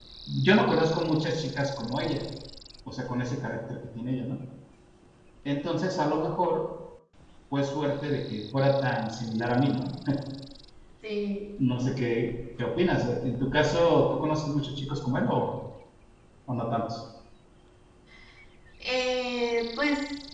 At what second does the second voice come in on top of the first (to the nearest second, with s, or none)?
none